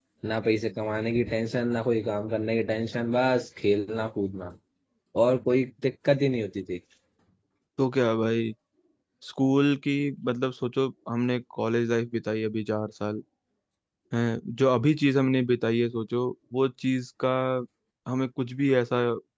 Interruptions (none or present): none